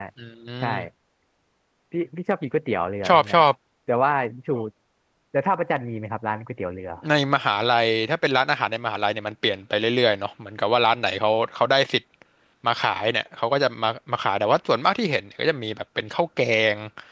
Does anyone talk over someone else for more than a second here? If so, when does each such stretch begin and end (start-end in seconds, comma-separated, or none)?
none